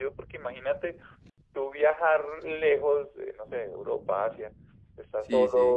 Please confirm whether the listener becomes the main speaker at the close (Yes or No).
No